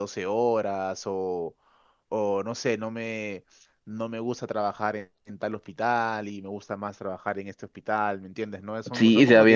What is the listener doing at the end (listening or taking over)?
taking over